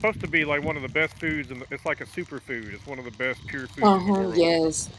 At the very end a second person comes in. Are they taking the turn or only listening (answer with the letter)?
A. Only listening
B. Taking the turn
B